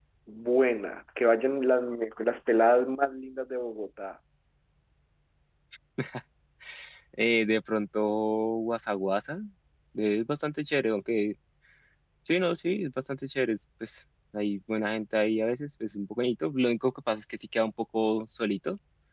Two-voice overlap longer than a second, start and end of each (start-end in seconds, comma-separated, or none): none